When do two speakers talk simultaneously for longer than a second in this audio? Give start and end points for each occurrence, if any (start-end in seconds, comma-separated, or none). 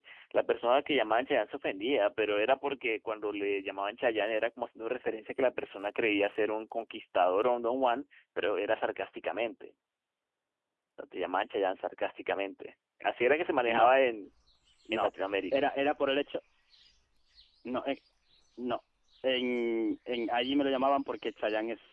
none